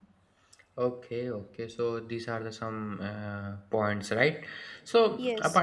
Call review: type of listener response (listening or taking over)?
listening